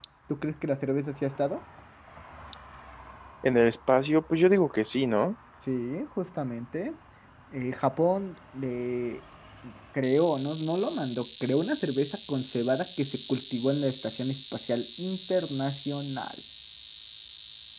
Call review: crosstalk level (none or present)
none